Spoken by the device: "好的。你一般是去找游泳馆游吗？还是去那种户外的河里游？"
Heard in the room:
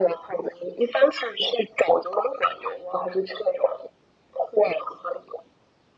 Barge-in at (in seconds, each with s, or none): none